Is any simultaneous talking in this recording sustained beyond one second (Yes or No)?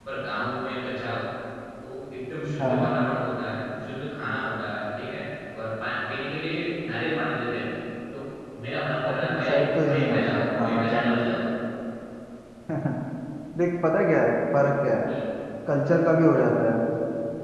Yes